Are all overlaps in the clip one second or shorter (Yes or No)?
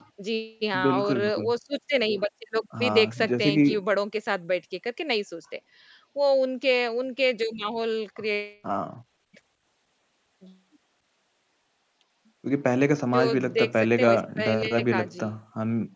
No